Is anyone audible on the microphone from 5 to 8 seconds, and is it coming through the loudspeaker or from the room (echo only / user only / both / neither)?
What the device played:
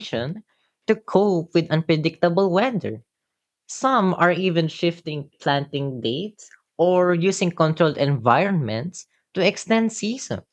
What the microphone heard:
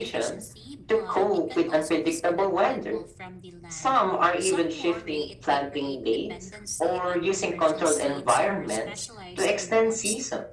both